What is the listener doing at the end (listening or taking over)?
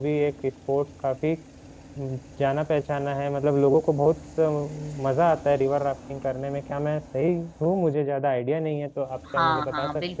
taking over